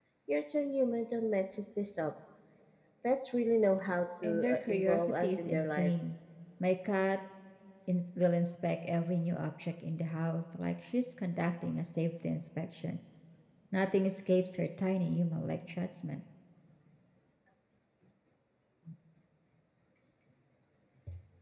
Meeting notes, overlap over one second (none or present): present